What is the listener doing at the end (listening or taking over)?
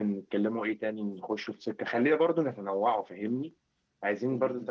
listening